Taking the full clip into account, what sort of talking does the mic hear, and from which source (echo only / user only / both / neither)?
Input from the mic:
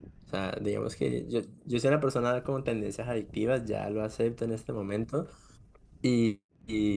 user only